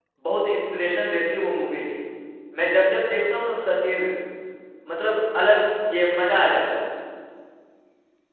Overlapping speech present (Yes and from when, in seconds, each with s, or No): No